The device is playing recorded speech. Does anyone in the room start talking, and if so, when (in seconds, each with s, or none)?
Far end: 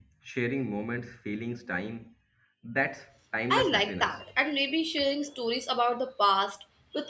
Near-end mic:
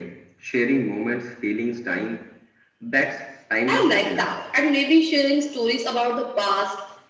none